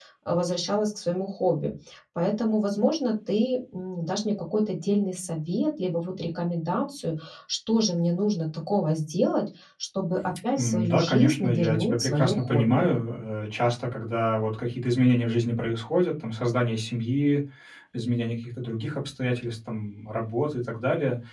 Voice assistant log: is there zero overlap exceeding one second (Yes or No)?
No